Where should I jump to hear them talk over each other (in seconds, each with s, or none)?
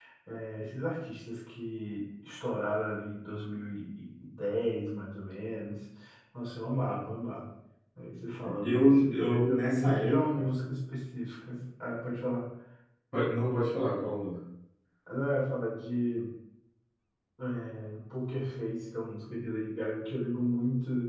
8.6 s